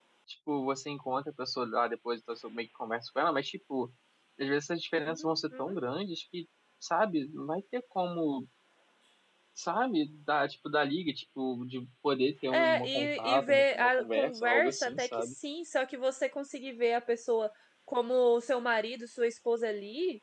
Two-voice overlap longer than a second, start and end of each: 12.5-15.3

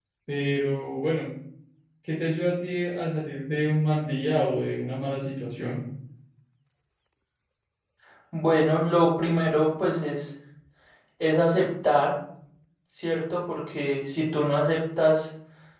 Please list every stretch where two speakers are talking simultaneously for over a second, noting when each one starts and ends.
none

